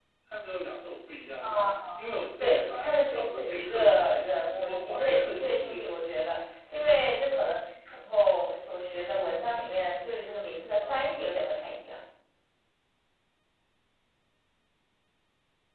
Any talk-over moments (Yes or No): Yes